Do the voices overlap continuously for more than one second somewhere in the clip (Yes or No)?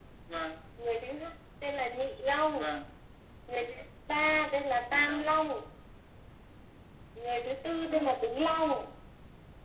No